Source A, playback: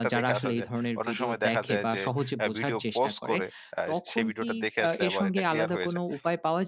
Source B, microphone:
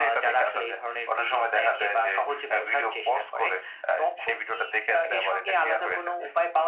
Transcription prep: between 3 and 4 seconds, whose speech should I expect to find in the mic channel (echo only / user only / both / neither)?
echo only